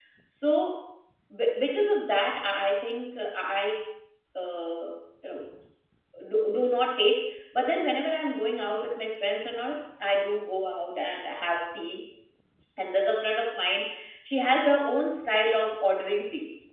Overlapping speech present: No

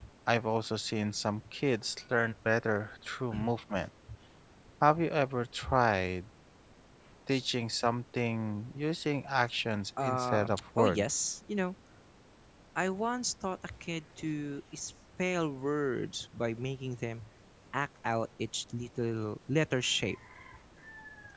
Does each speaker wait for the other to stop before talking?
No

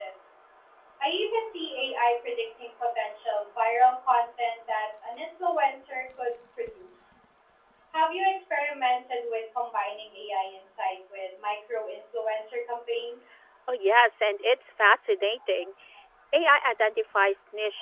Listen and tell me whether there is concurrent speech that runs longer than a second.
No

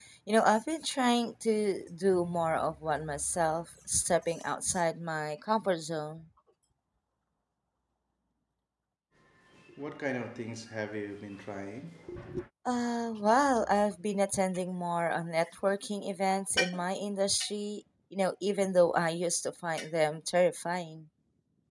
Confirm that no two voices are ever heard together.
Yes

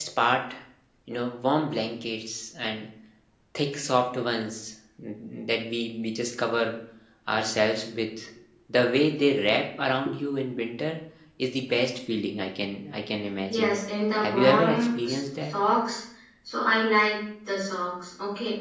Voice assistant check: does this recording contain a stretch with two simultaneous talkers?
Yes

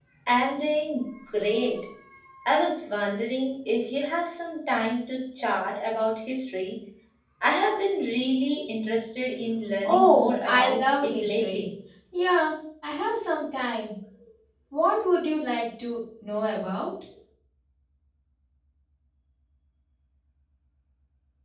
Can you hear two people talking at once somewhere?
Yes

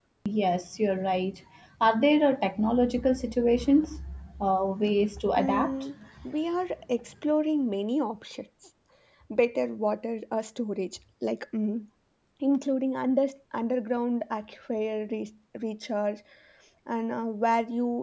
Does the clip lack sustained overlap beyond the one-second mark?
Yes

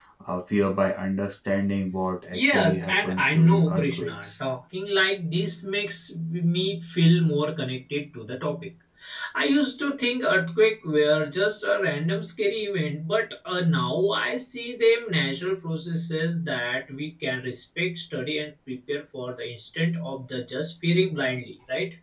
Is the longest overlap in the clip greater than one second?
Yes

